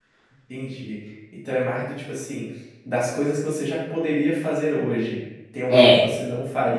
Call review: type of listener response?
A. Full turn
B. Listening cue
B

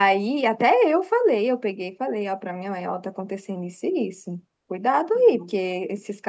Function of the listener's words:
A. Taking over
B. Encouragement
B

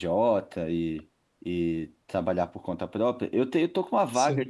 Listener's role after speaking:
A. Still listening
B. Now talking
A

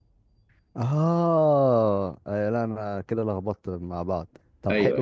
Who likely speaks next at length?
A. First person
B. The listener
A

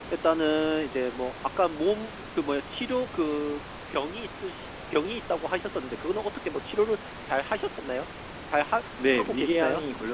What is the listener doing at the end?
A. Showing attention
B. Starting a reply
B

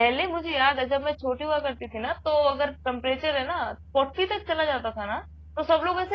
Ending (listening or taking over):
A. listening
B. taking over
A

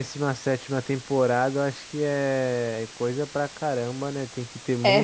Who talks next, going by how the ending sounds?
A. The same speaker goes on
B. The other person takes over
A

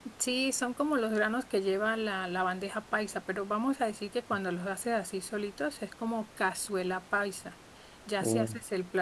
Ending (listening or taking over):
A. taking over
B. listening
B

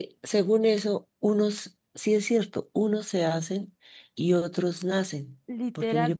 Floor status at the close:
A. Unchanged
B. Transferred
B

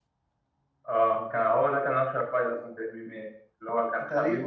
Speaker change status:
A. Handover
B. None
B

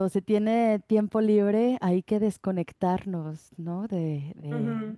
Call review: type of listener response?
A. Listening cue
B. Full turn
B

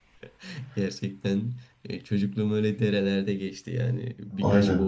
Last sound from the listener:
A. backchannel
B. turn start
A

